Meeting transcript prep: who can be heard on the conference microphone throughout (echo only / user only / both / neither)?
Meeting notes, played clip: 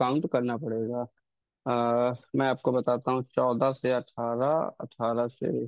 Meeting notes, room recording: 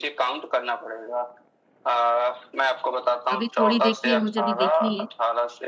both